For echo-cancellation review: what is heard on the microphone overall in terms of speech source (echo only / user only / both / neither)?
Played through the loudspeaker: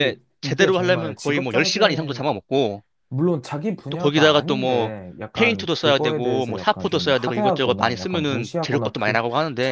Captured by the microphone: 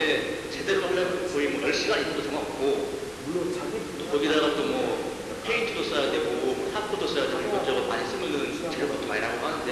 echo only